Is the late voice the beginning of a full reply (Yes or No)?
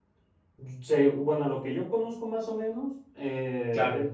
No